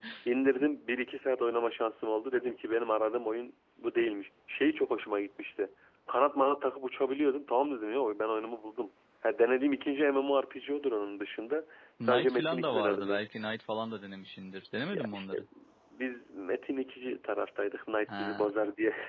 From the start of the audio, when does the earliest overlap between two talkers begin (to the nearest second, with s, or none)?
12 s